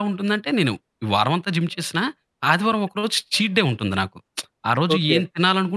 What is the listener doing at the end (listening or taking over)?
listening